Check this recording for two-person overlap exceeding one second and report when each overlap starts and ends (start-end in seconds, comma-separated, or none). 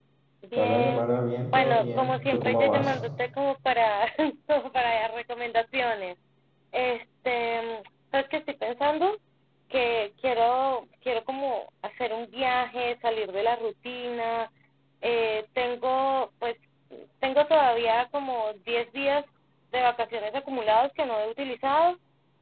1.5-2.9